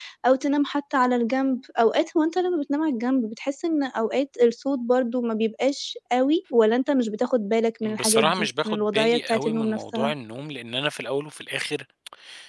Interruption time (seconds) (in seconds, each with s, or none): 7.8 s